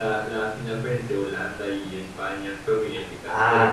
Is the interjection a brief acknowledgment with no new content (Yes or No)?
No